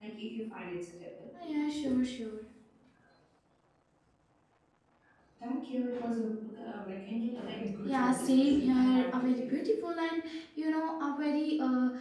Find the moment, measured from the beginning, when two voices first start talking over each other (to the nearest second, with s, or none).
8 s